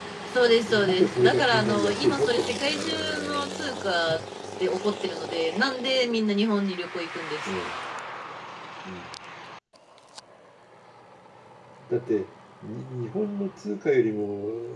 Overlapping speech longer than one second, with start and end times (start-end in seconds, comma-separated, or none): 0.7-3.2